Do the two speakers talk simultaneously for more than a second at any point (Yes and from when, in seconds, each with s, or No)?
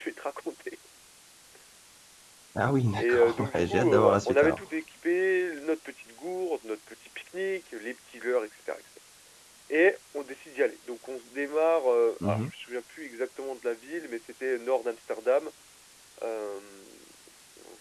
Yes, from 3.0 s